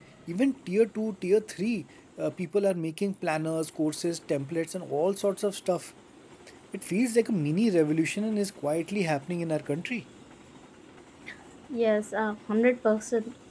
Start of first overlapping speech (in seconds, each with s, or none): none